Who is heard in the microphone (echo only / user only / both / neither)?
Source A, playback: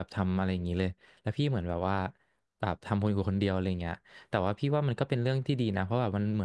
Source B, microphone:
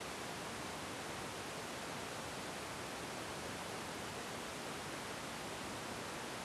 neither